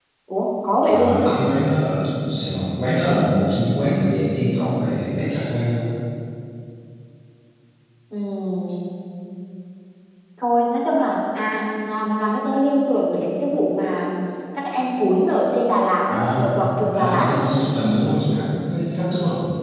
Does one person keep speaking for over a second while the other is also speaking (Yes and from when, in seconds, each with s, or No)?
No